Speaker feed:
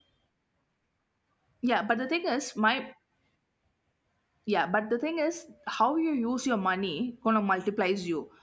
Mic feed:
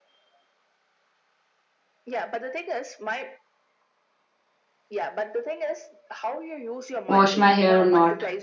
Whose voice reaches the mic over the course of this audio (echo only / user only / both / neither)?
both